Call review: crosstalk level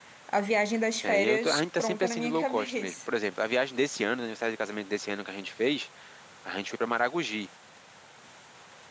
present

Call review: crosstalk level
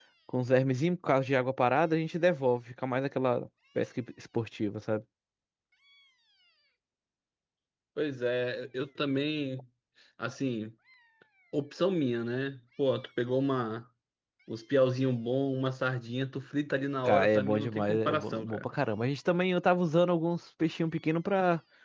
present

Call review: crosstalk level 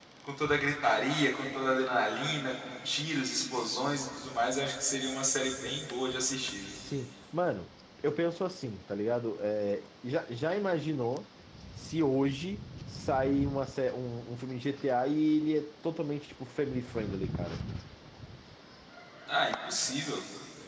none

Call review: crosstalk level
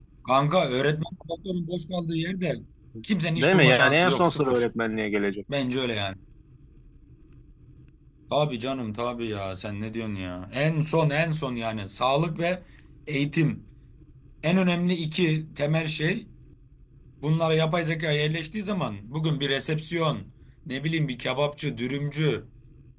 present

